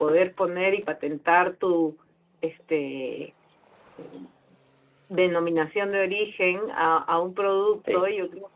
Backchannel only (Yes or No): Yes